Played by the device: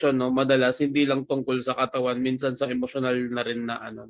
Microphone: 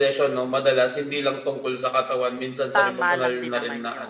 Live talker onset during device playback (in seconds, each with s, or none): 2.7 s